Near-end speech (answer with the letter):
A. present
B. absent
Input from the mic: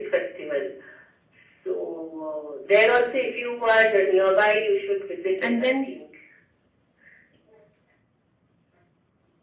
A